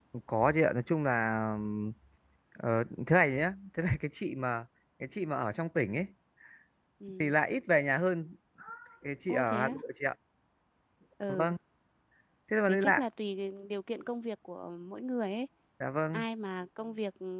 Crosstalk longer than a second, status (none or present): none